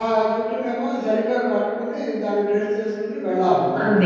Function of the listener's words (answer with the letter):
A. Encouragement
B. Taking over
B